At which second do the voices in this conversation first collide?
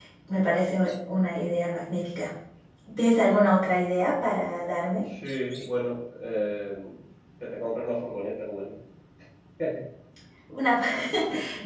none

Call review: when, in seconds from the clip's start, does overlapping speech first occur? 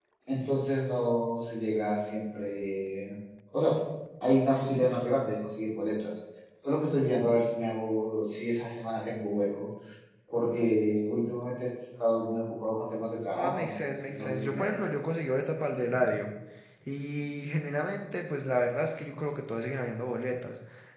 13 s

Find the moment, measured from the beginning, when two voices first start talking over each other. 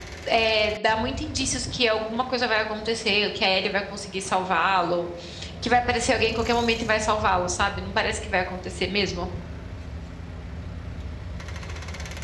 none

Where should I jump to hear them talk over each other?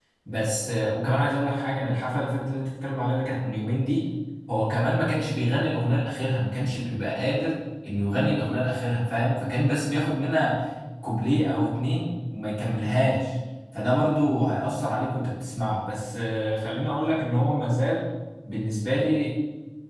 none

